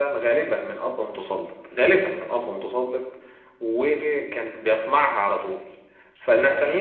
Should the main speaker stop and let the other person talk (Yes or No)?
No